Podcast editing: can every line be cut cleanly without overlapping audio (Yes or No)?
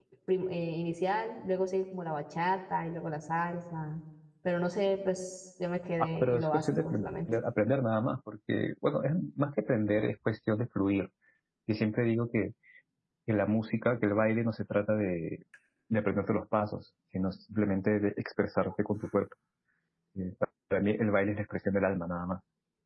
No